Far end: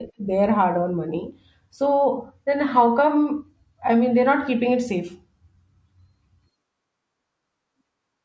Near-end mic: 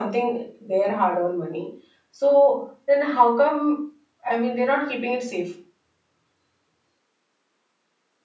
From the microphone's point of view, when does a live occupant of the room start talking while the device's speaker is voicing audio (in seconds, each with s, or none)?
none